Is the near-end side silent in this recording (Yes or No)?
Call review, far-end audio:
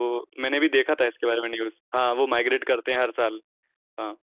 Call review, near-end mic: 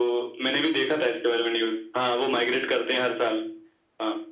Yes